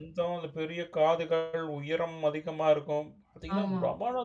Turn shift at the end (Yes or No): No